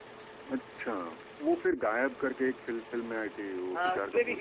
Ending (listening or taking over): taking over